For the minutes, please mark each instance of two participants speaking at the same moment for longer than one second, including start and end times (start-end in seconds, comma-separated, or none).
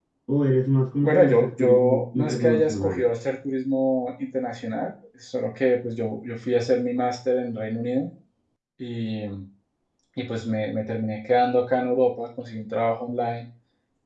1.0-3.1